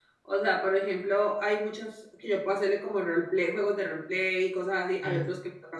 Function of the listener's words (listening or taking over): listening